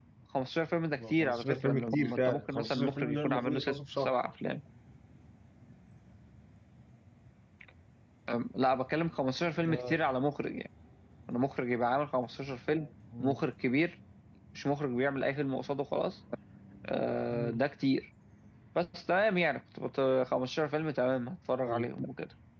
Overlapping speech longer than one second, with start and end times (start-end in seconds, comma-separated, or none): 1.0-4.2